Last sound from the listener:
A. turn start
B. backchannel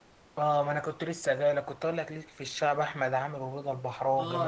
A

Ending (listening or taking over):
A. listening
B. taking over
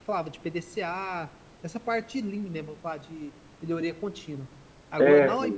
A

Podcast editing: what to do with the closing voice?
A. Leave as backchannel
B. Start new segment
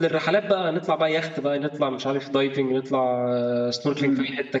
B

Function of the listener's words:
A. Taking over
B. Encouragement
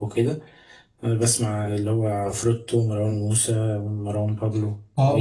A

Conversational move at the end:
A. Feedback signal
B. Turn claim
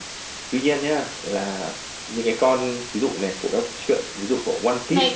B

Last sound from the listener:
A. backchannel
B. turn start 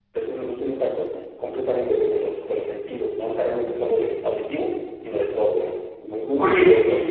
B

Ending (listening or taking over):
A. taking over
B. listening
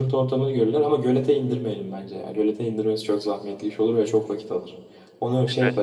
B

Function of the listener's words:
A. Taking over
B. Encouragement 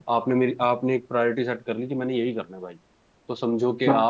B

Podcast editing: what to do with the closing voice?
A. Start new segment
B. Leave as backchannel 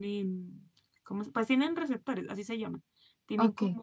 B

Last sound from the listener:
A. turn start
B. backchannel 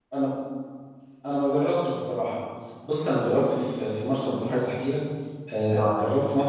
B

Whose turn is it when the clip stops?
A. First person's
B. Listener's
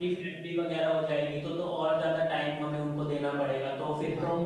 B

